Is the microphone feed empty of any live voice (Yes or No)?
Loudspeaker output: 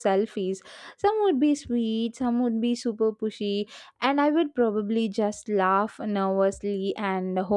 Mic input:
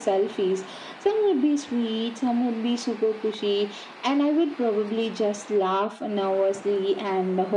Yes